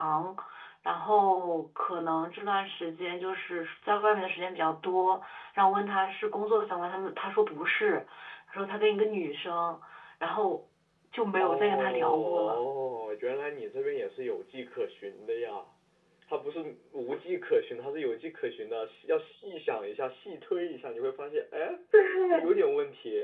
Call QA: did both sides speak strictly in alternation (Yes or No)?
No